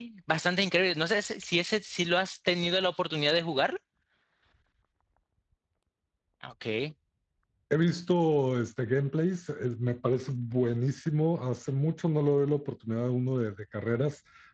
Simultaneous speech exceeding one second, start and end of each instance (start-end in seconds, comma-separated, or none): none